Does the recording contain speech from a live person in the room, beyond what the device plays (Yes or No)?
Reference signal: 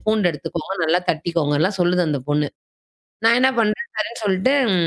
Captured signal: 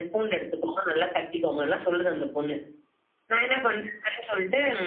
No